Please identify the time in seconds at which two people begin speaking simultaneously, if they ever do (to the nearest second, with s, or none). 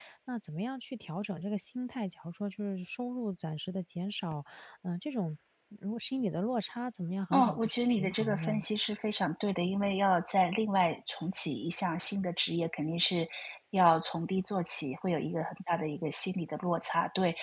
7 s